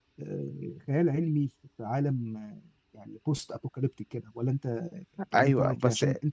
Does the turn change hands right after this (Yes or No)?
Yes